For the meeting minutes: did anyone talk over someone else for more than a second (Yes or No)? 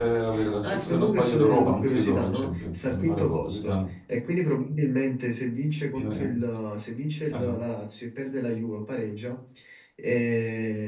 Yes